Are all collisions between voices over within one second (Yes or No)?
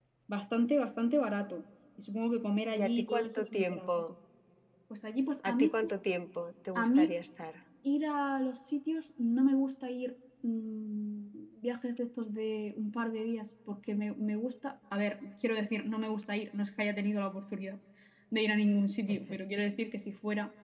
No